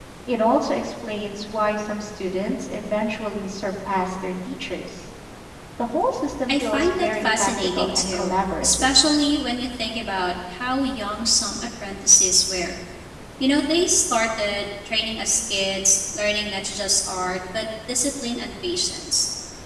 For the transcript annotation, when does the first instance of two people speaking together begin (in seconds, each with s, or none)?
6.5 s